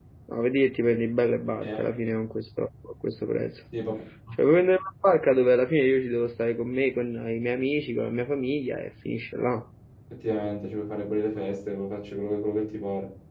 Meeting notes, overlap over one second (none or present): none